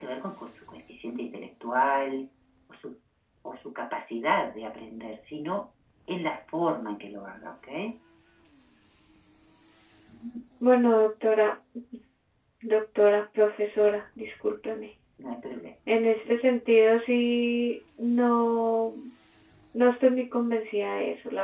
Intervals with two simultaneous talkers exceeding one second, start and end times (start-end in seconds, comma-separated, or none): none